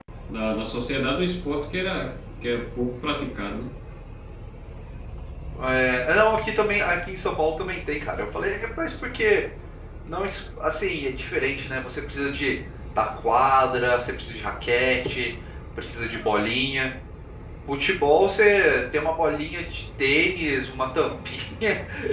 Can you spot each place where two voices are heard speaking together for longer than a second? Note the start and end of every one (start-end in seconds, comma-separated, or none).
none